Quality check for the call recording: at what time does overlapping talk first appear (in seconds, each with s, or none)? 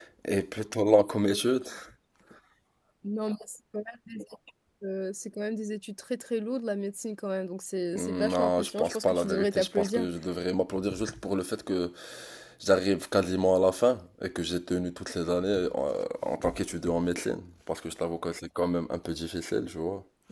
8.0 s